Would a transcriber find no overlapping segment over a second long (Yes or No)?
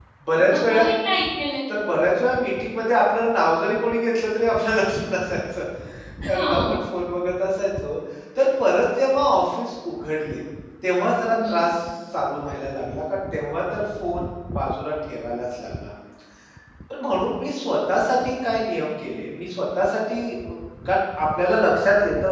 Yes